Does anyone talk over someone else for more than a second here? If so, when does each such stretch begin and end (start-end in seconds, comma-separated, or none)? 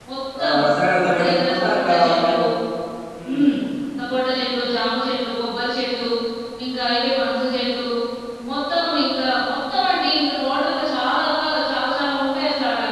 1.1-2.4